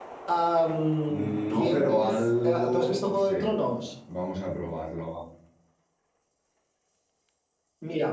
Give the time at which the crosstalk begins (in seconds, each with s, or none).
1.1 s